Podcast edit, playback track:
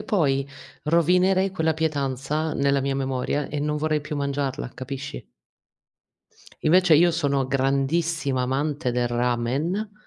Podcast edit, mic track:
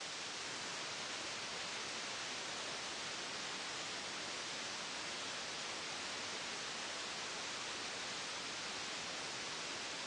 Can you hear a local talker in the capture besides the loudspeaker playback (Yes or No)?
No